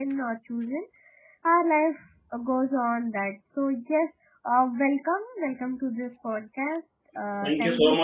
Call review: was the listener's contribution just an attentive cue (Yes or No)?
No